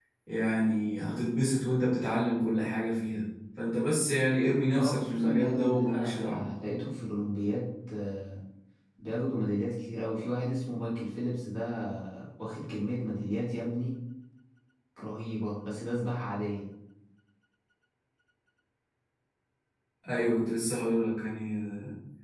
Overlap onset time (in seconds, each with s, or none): 4.7 s